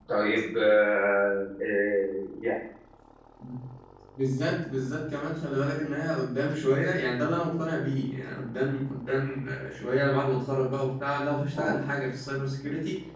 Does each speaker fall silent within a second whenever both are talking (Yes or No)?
Yes